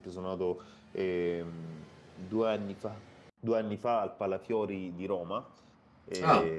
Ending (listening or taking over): listening